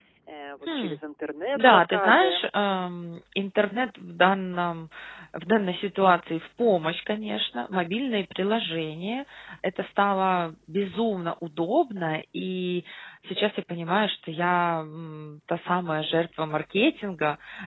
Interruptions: present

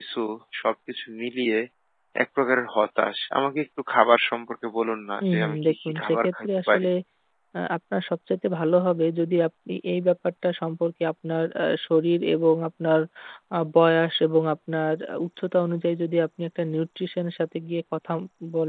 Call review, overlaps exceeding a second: present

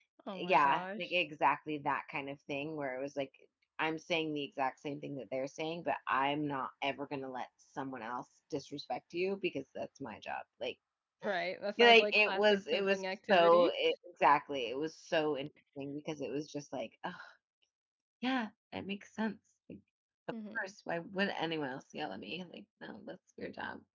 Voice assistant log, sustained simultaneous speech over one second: present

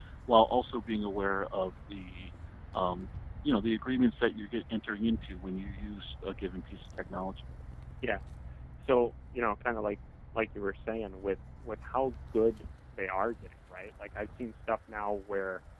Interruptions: none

